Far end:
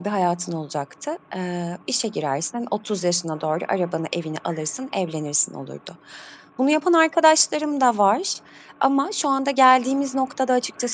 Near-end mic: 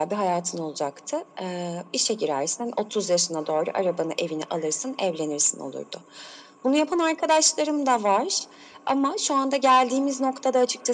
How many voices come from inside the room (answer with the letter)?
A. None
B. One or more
A